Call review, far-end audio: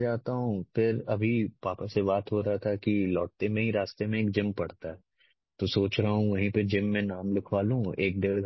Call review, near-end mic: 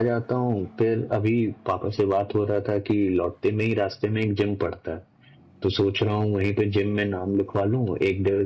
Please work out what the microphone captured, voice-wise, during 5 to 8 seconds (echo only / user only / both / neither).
echo only